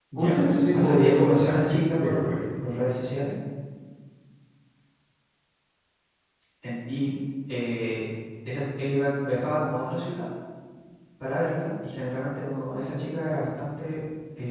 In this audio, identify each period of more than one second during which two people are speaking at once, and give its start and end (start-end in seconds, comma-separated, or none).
0.7-2.4